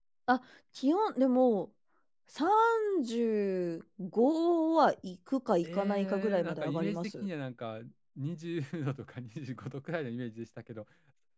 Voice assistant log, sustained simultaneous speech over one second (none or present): present